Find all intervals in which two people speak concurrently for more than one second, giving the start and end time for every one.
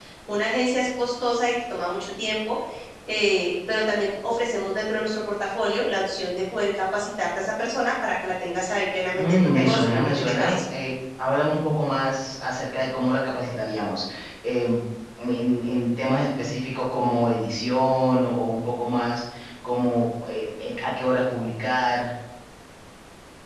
9.1-10.6

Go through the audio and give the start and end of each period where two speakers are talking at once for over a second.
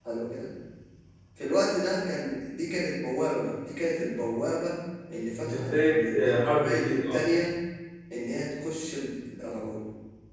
5.5-7.2

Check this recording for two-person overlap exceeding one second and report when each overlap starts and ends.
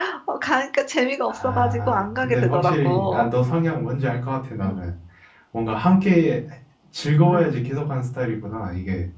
1.3-3.3

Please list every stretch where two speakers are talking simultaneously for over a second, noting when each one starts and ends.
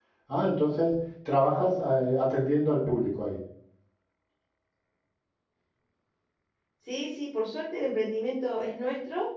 none

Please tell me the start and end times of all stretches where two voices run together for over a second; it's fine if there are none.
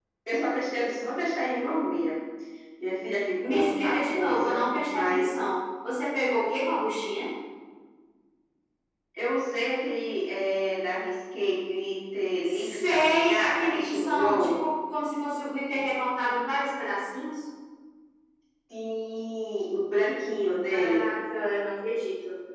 3.5-5.3, 12.4-14.6

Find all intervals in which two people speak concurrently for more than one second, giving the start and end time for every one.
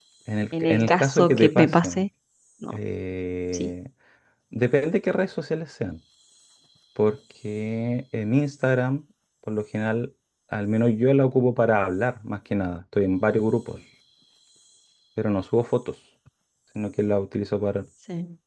0.6-2.0

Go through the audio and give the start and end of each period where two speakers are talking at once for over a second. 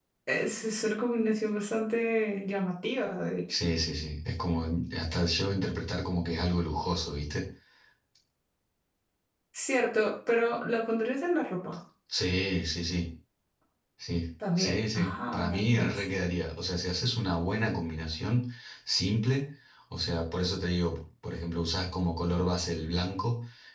14.6-16.0

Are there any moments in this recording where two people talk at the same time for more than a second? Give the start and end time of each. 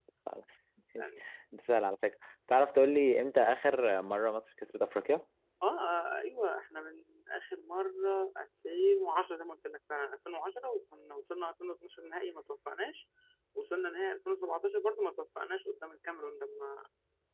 none

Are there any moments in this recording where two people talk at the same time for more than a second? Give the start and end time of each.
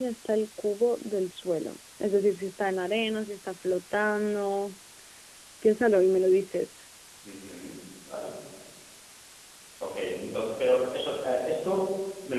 none

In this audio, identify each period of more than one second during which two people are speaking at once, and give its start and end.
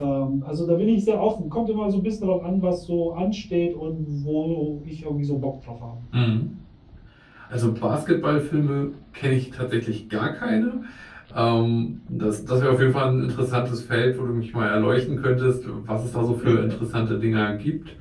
none

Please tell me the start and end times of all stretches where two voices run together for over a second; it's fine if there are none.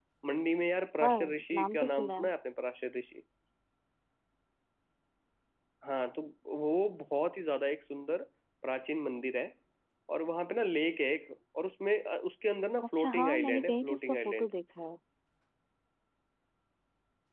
1.0-2.3, 13.0-14.5

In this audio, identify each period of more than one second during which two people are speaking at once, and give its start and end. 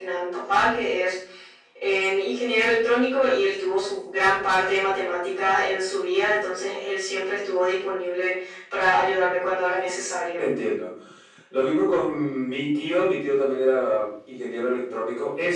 none

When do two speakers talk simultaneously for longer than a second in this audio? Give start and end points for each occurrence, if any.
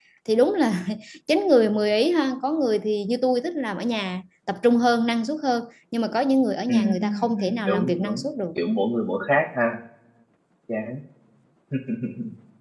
6.7-8.3

